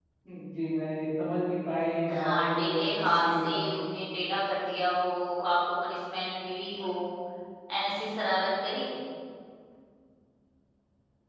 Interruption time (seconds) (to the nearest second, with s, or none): 2 s